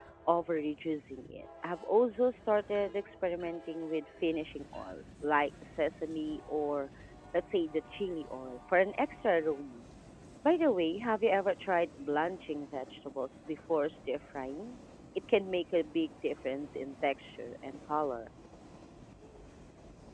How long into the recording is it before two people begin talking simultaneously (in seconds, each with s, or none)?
none